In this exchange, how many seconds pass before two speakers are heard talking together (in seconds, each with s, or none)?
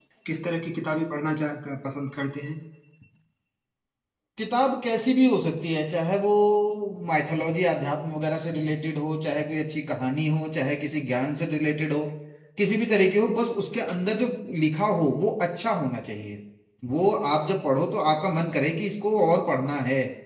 none